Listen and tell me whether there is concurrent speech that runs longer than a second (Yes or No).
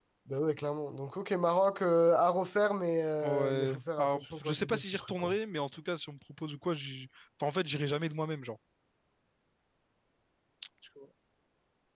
Yes